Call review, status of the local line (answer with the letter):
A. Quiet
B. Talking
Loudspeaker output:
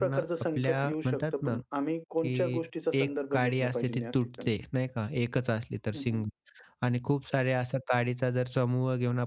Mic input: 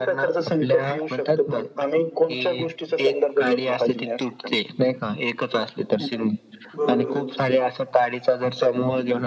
B